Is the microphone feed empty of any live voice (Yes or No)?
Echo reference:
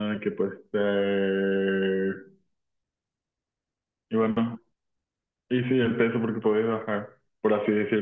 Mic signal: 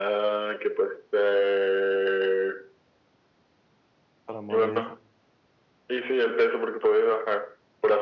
No